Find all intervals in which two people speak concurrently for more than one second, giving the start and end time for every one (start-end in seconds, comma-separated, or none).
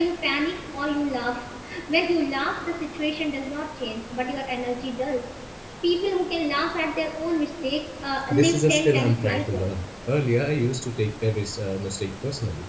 8.3-9.7